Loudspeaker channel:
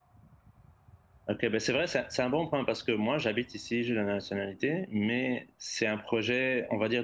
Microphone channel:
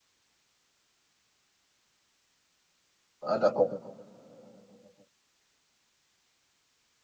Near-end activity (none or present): present